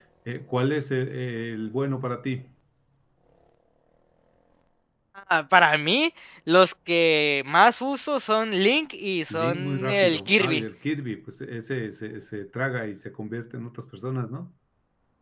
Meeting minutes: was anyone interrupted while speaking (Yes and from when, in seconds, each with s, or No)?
Yes, from 9.3 s